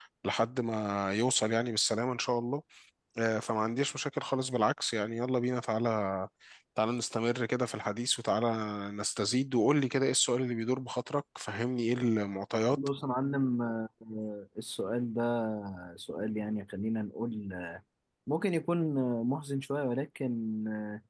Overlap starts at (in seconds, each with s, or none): none